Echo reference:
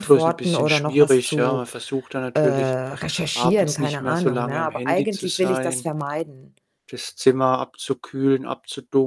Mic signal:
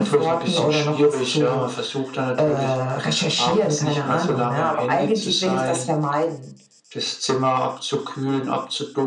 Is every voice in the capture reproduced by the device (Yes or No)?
Yes